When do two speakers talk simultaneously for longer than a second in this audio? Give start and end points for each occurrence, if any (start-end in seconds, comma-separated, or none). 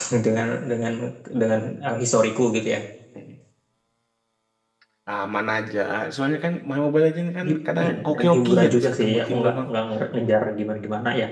7.5-9.7